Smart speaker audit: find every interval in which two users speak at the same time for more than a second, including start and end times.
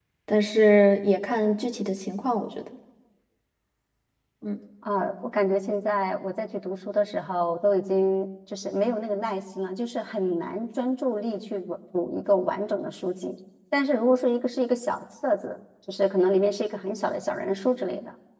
none

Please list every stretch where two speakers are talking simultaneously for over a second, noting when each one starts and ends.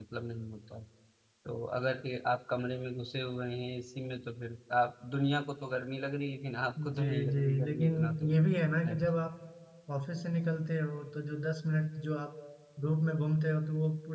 7.0-8.3

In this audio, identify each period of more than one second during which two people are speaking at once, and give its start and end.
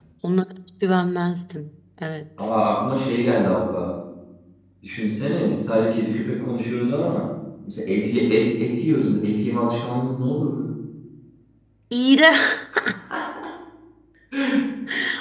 none

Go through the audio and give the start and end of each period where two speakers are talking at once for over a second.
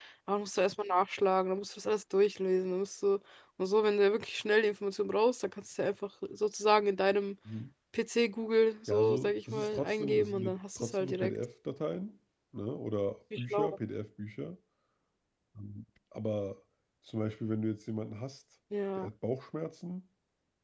8.9-11.4

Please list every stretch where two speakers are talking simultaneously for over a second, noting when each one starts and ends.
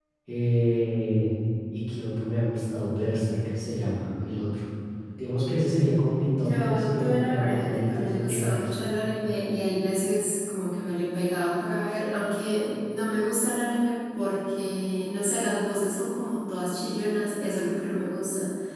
6.4-8.7

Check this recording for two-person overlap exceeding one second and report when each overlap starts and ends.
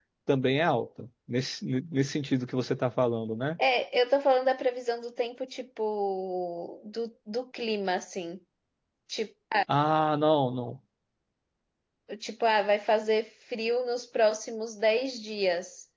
none

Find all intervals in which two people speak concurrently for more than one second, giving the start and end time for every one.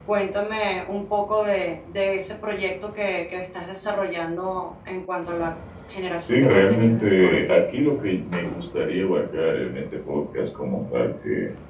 6.2-7.6

